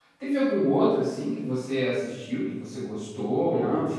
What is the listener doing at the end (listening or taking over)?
taking over